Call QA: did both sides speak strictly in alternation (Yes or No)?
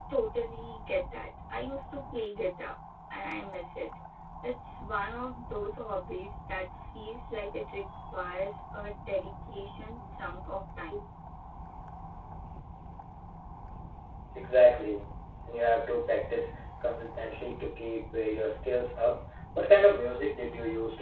Yes